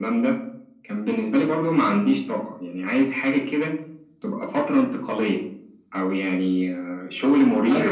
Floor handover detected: Yes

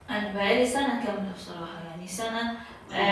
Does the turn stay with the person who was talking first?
Yes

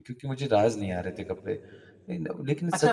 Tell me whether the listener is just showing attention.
No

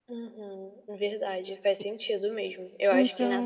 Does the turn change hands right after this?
No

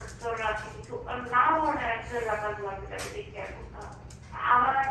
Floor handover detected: No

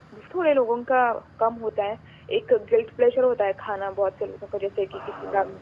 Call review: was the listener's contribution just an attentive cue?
Yes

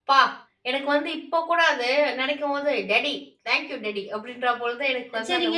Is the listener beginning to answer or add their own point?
Yes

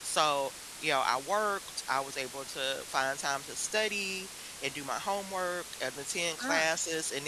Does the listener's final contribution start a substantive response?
No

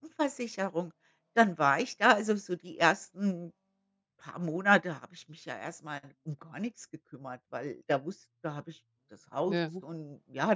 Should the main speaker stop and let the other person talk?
No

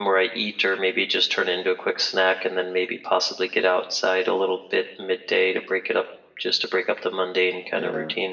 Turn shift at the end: Yes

